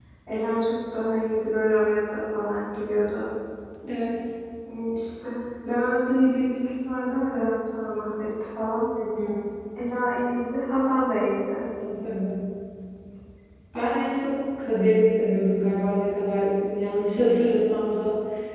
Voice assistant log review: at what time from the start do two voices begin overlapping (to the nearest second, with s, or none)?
none